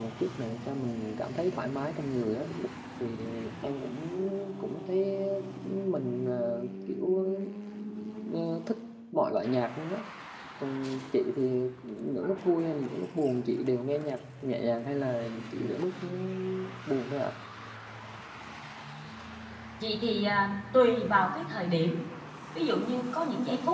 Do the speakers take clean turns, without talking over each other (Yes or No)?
Yes